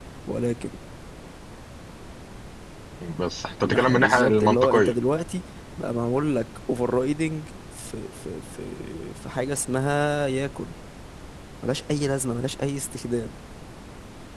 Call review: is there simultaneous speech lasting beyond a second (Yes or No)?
Yes